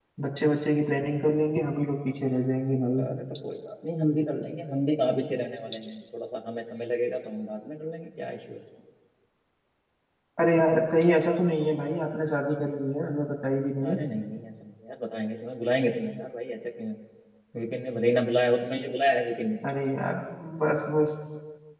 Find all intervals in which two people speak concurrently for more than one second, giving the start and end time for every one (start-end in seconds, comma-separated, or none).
none